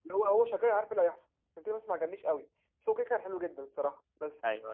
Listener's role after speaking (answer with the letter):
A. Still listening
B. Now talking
A